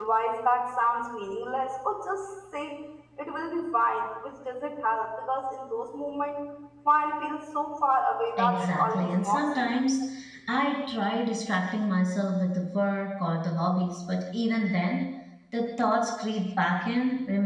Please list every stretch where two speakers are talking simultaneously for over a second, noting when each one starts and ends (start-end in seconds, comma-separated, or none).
8.4-9.7